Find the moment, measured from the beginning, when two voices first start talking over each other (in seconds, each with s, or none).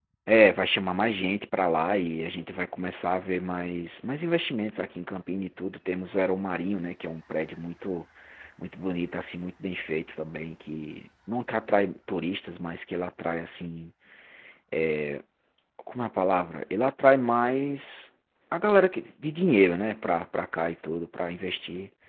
none